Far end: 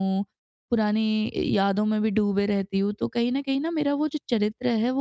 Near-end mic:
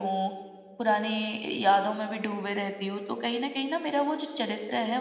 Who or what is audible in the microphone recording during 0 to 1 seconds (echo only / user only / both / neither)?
echo only